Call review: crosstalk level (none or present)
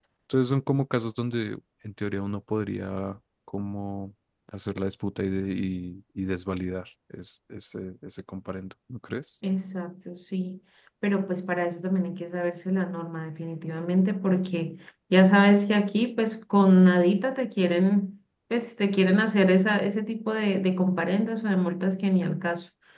none